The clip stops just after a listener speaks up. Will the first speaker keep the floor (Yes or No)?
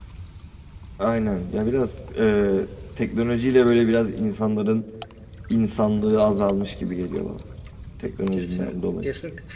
No